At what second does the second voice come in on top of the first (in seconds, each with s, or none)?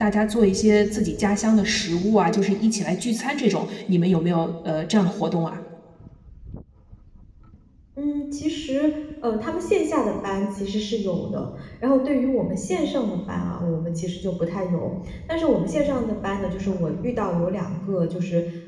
none